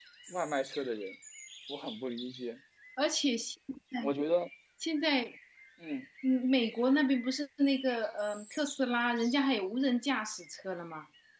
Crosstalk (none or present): none